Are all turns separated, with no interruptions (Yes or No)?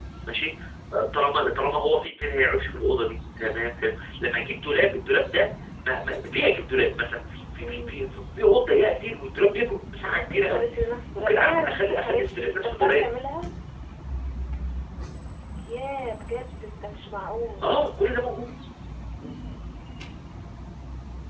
No